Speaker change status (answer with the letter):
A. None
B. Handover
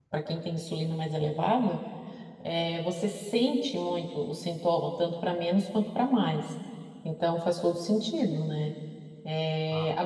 A